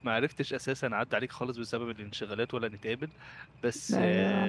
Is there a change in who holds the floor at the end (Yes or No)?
No